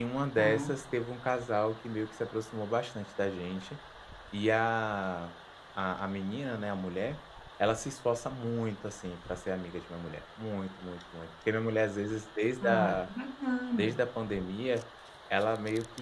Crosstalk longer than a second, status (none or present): none